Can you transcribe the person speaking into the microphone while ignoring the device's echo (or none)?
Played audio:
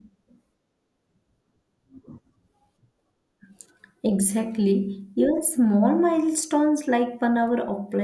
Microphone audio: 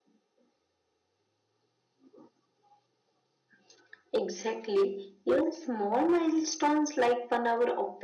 none